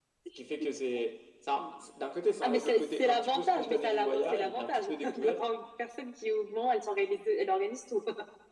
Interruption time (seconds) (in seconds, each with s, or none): 2.4 s